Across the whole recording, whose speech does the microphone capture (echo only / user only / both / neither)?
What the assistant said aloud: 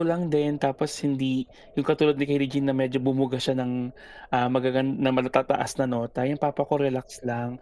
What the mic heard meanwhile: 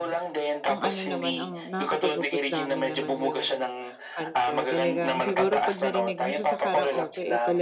both